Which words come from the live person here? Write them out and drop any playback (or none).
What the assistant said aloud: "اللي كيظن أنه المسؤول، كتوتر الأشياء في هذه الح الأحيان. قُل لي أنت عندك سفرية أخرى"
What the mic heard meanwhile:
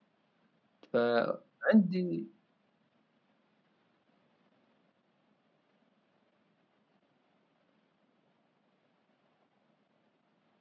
فعندي